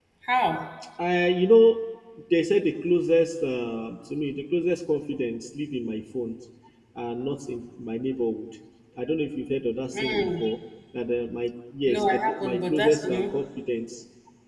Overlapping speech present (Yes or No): Yes